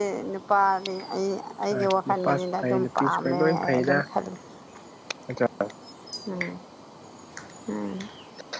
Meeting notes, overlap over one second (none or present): present